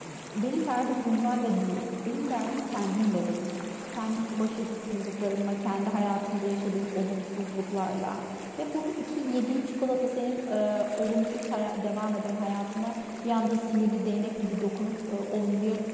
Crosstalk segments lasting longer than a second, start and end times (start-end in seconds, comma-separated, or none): none